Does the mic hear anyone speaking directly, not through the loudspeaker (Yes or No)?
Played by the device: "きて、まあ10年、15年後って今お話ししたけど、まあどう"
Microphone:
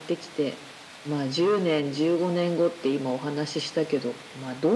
No